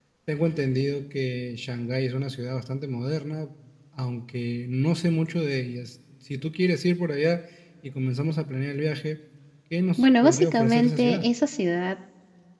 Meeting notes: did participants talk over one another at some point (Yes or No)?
Yes